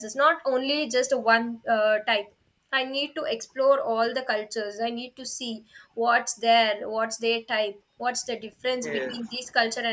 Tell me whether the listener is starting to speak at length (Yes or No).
No